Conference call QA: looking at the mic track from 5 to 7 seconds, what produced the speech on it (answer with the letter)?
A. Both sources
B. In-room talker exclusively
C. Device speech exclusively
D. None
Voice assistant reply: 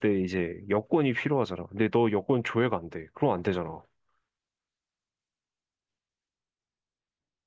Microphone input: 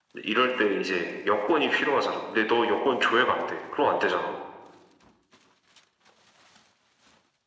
D